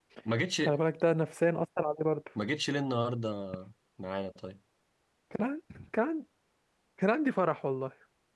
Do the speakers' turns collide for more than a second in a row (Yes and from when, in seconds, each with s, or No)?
No